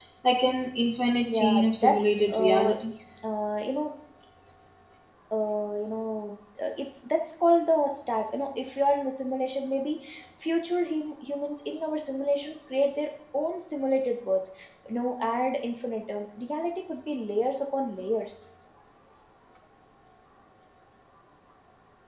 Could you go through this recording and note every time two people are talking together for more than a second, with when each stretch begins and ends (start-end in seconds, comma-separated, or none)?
1.2-2.7